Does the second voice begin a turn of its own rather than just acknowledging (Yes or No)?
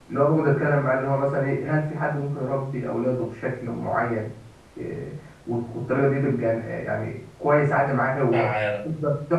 No